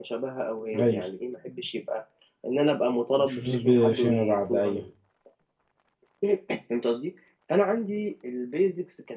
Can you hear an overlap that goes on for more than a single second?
Yes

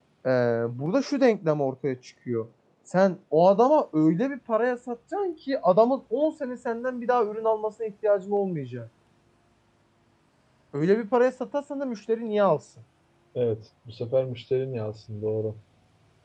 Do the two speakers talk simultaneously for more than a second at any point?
No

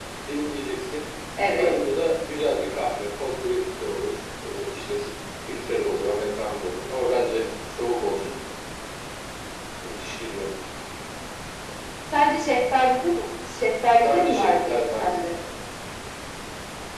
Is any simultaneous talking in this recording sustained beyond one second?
Yes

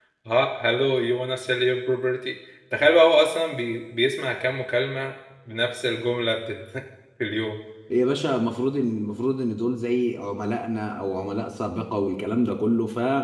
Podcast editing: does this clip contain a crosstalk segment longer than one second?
No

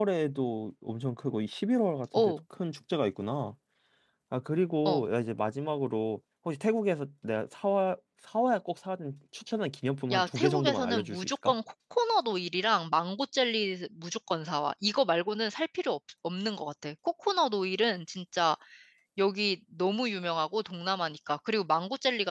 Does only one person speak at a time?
No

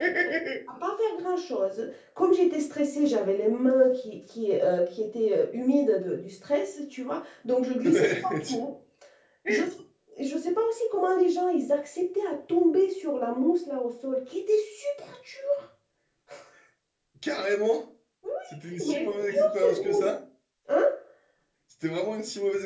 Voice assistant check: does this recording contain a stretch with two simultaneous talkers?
Yes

